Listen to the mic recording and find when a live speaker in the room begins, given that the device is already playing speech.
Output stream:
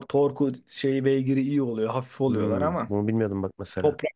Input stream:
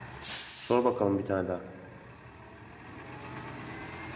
0.6 s

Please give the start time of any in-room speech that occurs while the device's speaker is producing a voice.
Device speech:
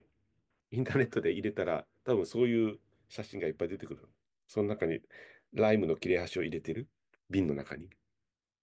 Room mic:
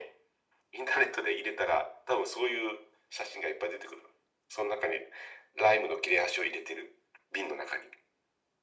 none

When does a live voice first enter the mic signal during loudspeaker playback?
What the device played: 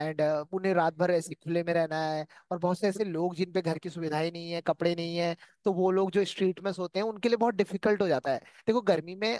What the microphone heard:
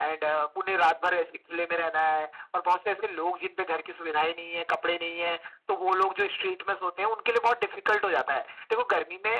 none

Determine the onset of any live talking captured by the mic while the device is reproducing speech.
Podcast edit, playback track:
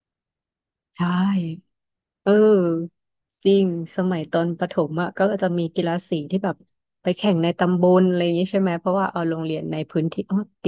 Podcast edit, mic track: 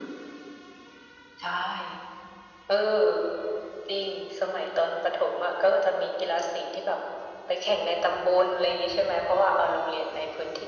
none

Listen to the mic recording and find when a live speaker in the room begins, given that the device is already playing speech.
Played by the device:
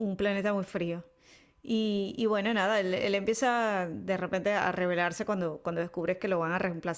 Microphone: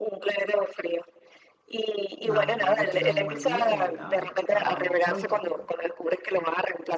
2.2 s

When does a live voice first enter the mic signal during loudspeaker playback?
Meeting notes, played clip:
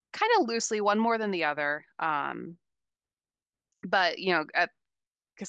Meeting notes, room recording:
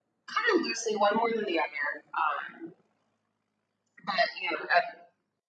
none

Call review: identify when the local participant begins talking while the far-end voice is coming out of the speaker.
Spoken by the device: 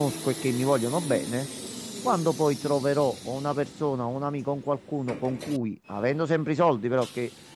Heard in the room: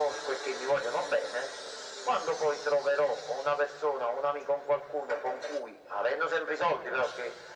none

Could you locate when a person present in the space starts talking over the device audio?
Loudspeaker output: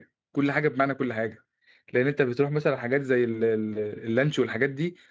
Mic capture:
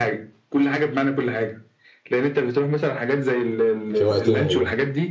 3.9 s

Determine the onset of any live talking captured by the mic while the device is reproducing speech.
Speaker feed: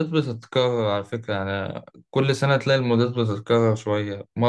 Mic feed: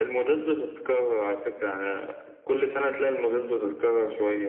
none

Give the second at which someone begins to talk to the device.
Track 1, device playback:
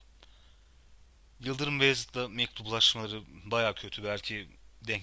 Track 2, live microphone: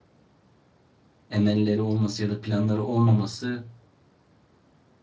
1.3 s

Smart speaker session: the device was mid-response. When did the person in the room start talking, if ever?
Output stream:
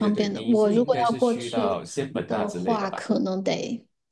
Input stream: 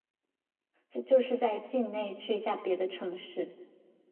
0.9 s

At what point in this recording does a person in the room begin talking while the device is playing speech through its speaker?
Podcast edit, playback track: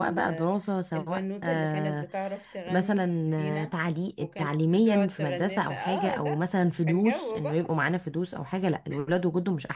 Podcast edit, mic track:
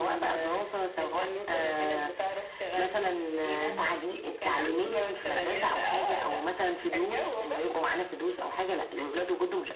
3.7 s

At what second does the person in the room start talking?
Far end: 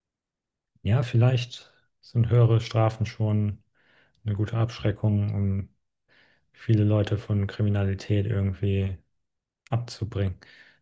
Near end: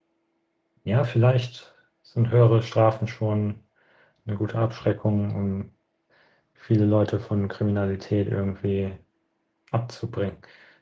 none

